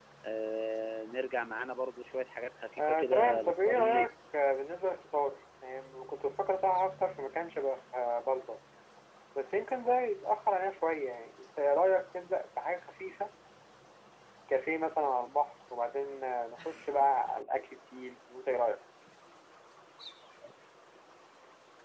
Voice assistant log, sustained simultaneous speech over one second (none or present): present